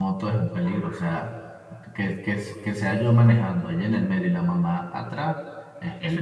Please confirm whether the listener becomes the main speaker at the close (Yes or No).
Yes